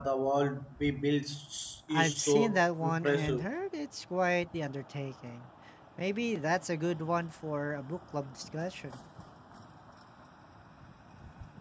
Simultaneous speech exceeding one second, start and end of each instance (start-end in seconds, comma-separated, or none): 1.9-3.5